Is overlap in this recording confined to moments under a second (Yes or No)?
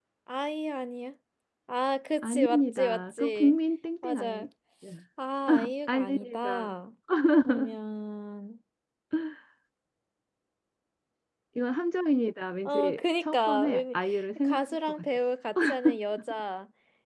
No